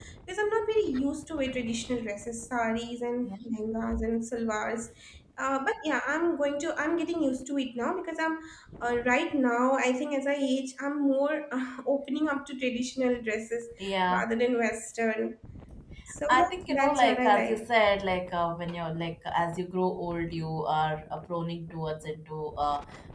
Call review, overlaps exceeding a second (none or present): present